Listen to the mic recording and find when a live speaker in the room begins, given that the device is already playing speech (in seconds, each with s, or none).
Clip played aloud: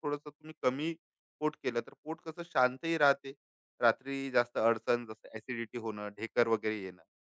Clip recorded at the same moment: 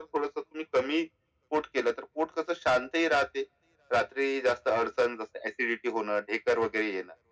none